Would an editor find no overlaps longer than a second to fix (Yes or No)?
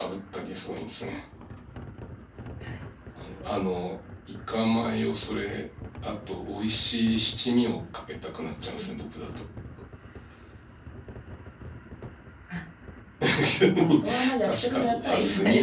No